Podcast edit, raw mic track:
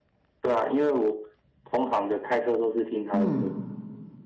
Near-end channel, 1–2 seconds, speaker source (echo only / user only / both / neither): echo only